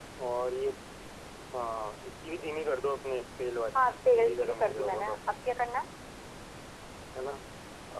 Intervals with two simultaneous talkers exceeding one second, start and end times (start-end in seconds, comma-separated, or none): 3.8-5.3